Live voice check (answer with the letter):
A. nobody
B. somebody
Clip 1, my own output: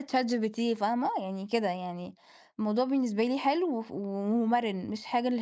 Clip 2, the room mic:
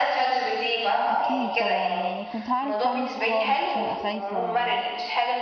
B